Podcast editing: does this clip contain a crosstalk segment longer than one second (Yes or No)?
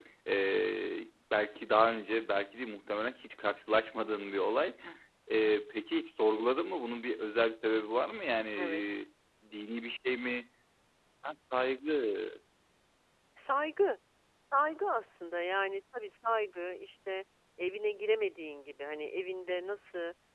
No